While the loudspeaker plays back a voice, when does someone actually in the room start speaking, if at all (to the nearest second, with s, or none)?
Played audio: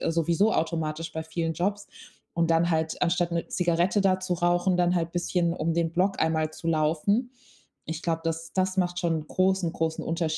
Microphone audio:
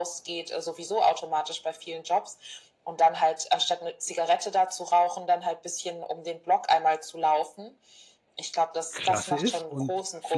9 s